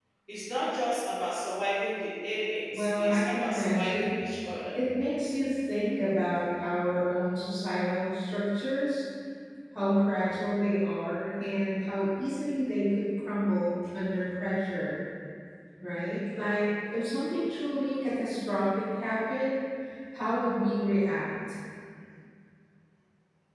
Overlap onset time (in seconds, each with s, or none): 2.7 s